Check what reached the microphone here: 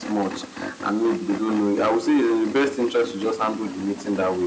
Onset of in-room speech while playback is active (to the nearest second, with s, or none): none